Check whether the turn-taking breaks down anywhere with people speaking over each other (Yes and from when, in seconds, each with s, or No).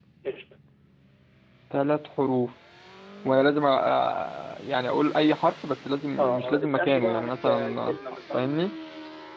Yes, from 6.2 s